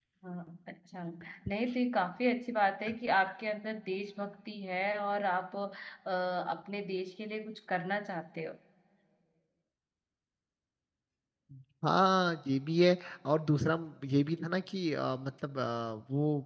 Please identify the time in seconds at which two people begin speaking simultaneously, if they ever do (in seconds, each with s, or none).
none